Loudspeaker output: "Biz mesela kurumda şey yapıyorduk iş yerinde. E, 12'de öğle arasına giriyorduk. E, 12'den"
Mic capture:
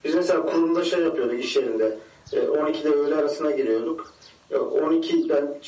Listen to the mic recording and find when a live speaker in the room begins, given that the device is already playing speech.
none

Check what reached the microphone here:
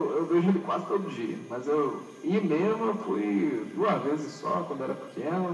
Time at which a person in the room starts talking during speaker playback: none

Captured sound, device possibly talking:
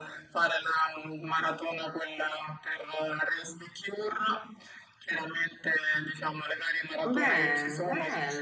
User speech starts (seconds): 7 s

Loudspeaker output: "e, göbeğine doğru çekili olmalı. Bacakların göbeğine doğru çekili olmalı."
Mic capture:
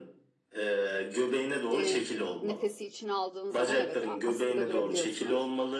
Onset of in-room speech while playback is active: 2 s

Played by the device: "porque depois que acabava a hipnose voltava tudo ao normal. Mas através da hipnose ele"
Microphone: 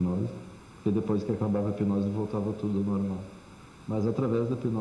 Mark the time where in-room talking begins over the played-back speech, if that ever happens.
none

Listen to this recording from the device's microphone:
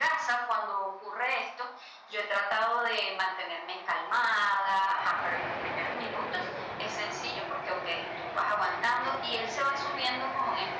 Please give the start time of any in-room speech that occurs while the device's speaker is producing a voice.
none

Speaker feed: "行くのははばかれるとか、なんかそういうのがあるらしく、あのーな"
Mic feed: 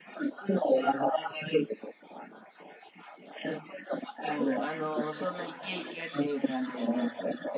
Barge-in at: 4 s

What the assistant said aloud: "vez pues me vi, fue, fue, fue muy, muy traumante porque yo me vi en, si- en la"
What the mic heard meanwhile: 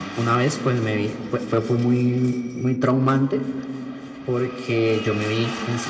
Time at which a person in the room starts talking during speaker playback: none

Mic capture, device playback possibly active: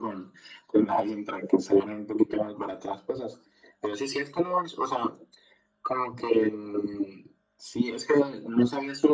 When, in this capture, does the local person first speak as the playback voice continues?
none

